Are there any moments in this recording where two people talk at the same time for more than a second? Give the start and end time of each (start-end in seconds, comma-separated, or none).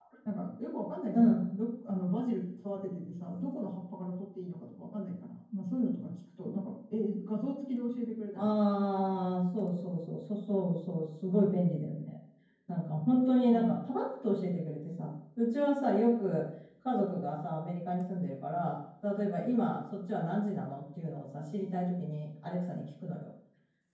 none